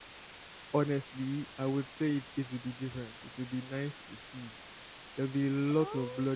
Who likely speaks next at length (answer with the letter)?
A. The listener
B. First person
B